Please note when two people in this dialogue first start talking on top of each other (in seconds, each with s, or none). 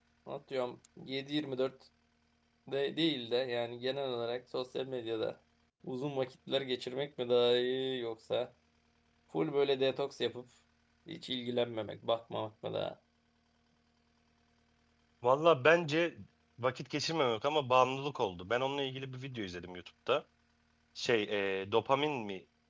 none